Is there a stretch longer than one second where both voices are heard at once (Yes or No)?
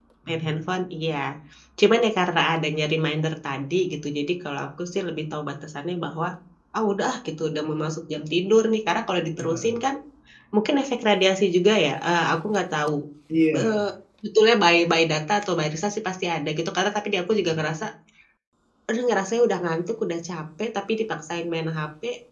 No